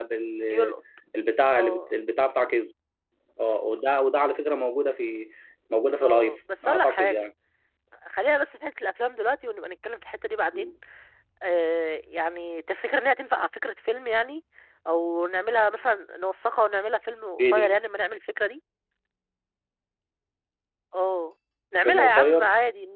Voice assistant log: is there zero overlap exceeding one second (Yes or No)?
No